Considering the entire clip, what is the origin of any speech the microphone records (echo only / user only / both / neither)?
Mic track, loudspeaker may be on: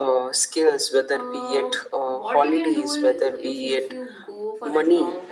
both